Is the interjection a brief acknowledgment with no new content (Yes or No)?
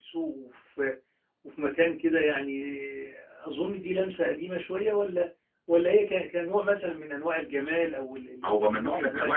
No